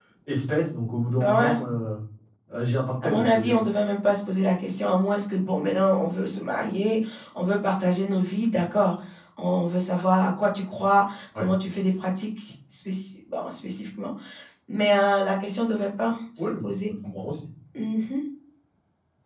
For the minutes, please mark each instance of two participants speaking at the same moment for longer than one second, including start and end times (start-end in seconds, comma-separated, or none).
none